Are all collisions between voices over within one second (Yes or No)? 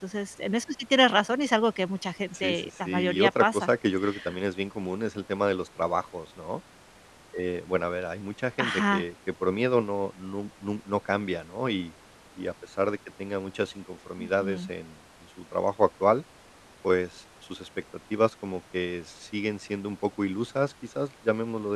No